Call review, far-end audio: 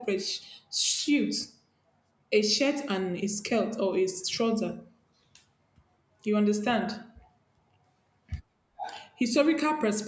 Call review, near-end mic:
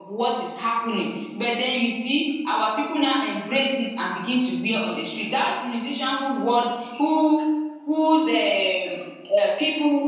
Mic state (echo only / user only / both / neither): user only